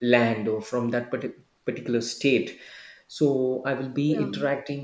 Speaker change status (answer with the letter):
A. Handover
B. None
B